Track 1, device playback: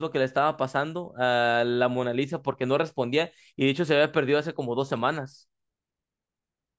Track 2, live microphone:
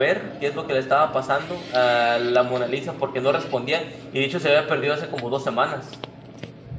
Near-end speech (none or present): none